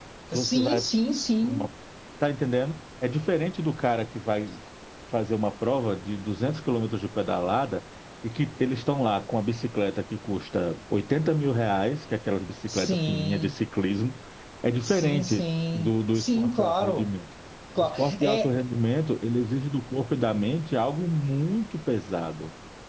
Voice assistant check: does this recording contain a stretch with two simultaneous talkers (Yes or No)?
Yes